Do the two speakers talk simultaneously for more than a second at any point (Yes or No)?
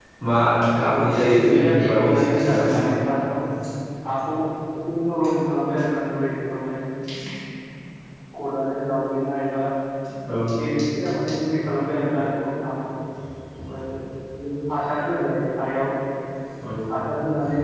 Yes